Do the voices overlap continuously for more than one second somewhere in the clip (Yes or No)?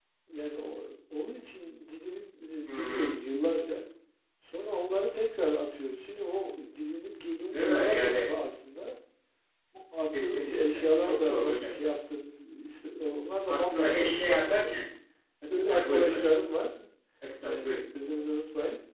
Yes